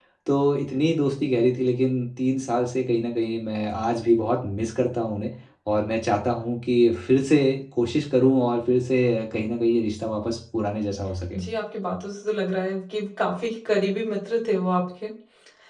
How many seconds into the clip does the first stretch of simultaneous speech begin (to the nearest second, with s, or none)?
none